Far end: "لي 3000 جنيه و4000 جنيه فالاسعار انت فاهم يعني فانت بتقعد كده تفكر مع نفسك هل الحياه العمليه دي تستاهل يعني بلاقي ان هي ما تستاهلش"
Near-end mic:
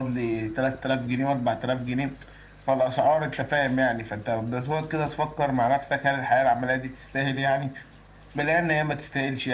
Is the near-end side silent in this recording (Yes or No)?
Yes